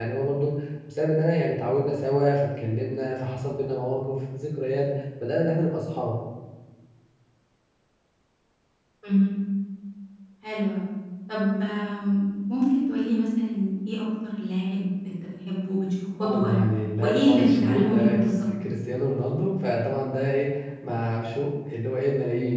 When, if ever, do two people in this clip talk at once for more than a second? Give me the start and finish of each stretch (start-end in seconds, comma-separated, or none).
17.0-18.2